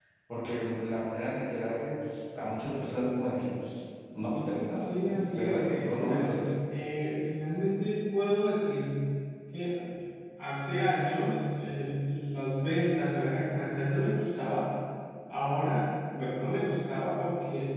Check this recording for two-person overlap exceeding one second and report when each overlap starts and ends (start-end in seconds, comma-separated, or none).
4.8-6.4